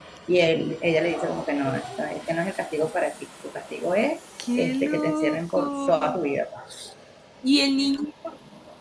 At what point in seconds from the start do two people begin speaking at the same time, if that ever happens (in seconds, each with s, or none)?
4.4 s